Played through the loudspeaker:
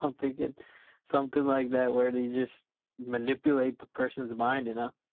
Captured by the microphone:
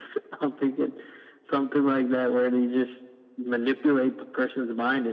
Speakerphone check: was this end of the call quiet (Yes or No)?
Yes